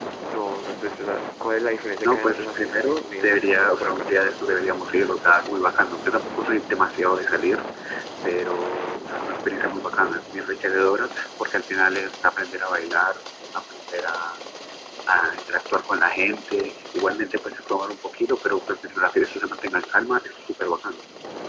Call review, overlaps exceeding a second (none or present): present